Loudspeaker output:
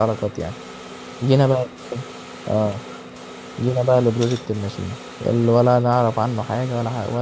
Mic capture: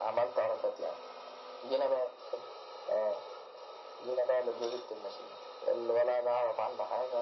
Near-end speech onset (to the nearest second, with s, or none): none